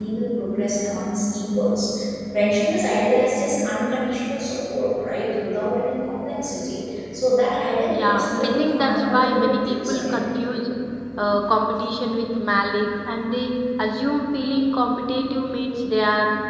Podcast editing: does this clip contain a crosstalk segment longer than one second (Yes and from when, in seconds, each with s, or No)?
Yes, from 7.9 s